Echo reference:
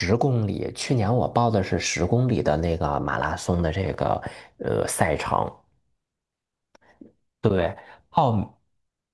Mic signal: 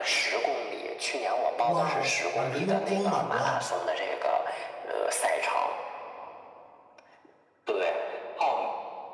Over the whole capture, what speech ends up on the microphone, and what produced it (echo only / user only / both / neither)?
both